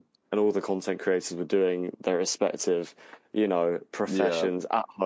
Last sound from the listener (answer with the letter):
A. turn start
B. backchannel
B